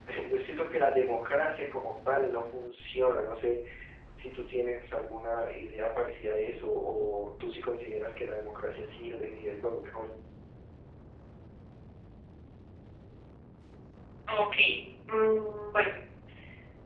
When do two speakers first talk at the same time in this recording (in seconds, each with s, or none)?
none